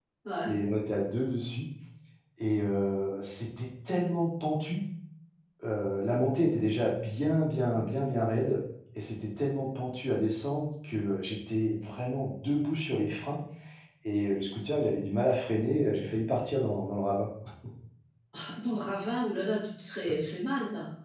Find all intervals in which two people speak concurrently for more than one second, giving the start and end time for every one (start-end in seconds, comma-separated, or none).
none